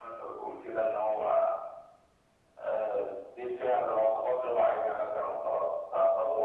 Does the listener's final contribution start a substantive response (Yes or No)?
Yes